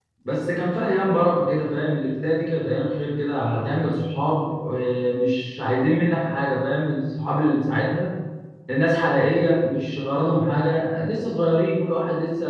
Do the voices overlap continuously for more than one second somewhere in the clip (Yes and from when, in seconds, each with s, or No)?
No